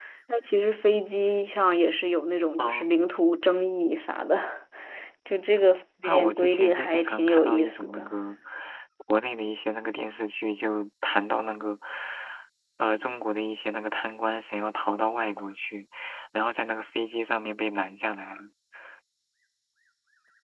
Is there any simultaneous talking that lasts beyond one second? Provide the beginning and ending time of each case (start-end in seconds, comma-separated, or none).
6.0-8.1